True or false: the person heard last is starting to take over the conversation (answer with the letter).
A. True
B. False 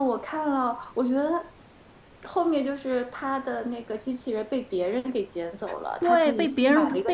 A